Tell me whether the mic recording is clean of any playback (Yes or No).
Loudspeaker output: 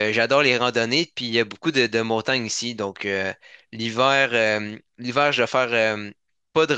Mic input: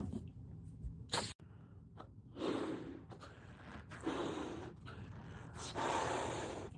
Yes